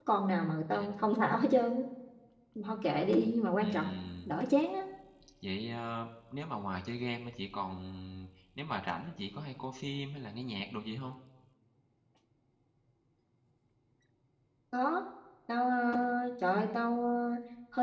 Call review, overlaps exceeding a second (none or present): none